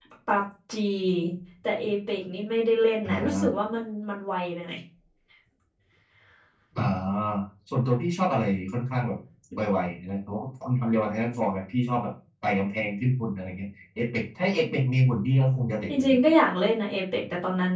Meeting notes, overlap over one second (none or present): none